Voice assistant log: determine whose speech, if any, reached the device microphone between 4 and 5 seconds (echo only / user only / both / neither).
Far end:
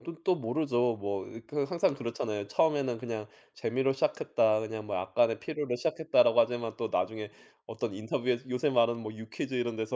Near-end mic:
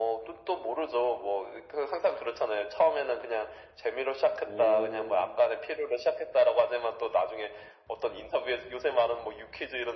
both